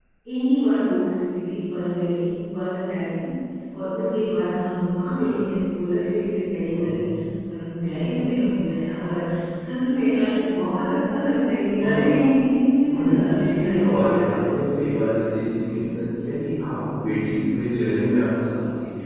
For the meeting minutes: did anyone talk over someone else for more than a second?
Yes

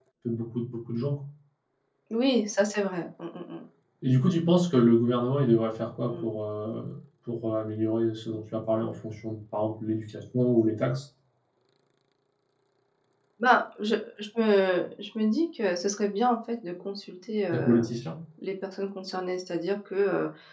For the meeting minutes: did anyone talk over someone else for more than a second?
No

